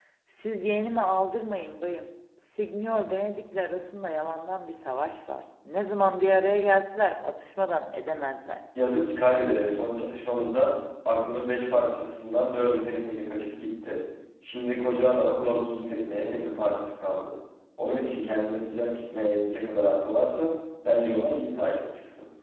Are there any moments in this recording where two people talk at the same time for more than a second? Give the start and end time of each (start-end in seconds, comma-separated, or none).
none